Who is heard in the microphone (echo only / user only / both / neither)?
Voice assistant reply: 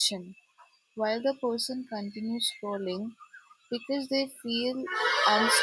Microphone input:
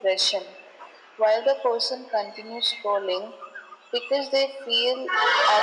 echo only